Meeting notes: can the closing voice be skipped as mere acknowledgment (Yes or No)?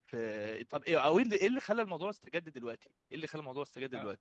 No